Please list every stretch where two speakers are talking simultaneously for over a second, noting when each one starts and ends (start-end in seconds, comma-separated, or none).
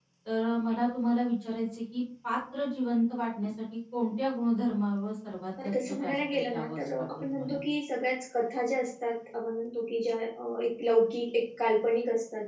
5.6-7.6